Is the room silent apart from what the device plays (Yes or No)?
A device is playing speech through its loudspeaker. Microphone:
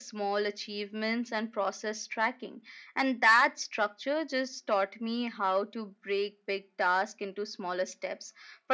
Yes